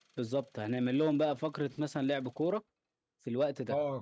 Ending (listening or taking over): taking over